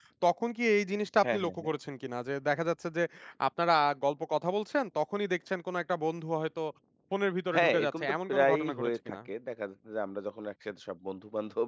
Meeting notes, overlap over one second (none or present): present